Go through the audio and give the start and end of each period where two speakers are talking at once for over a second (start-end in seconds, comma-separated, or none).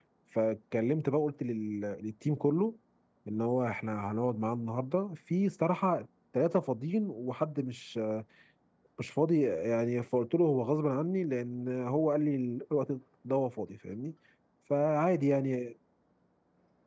none